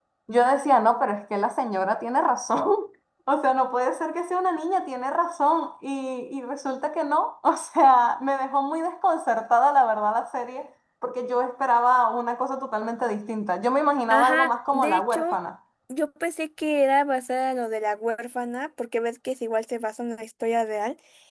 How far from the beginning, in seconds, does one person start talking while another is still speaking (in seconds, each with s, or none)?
14.1 s